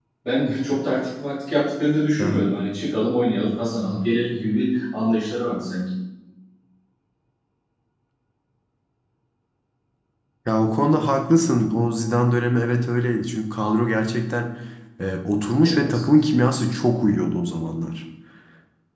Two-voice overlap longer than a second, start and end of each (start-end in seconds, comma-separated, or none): none